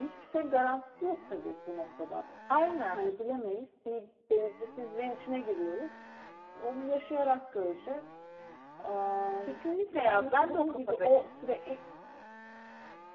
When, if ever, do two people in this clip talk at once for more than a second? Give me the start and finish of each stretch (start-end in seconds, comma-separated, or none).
9.9-11.3